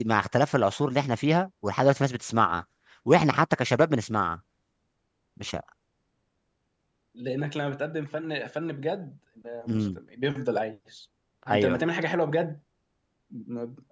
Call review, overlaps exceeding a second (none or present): none